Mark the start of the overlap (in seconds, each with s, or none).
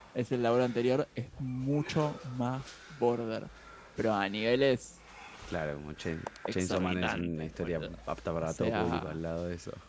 6.5 s